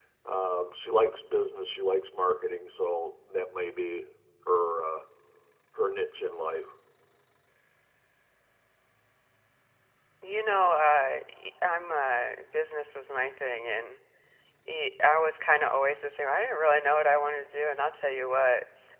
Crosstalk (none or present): none